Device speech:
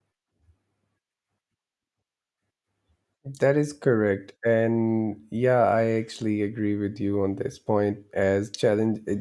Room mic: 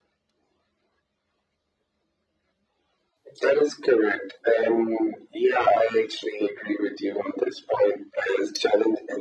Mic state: echo only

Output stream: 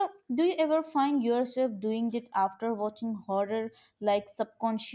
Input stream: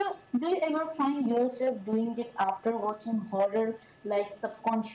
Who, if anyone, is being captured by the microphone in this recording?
echo only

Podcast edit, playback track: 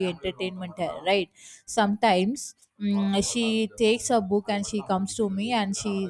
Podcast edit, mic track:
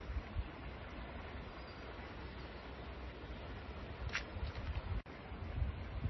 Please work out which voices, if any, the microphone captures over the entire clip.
neither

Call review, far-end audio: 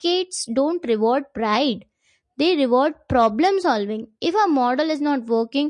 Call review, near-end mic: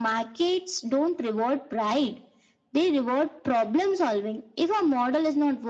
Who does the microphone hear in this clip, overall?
echo only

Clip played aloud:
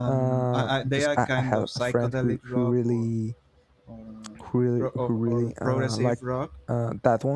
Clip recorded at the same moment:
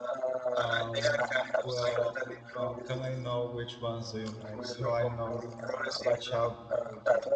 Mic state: both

